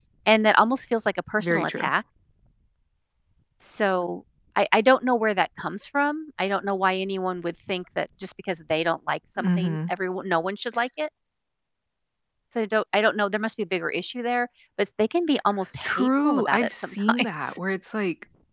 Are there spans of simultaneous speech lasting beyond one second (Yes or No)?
Yes